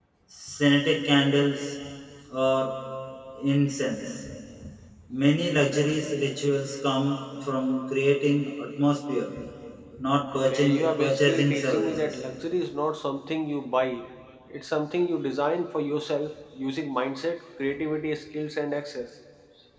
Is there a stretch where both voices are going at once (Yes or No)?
Yes